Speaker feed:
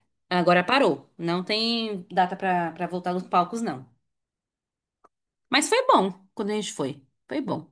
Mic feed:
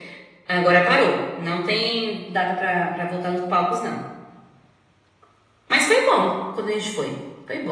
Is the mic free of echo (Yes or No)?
No